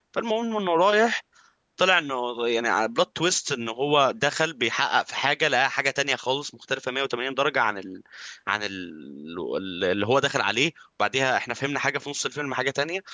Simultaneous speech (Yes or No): No